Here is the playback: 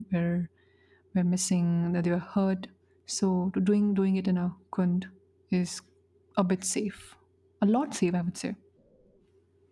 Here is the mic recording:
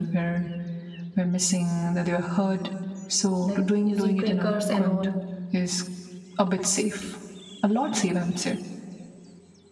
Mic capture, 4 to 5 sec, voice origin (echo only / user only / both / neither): both